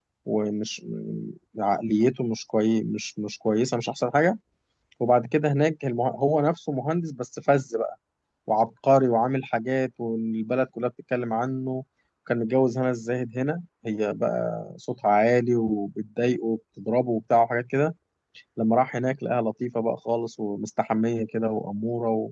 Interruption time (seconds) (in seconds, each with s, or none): none